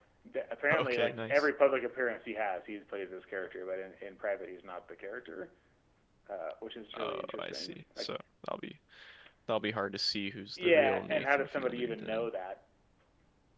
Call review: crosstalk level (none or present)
present